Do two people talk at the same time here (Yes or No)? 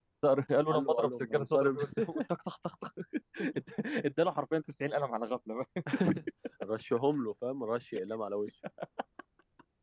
Yes